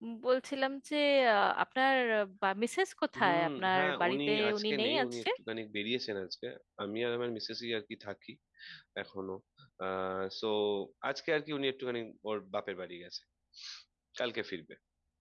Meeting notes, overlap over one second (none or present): present